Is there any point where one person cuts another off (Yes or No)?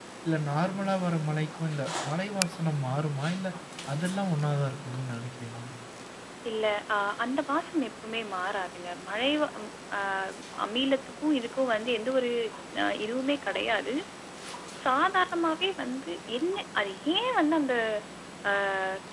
No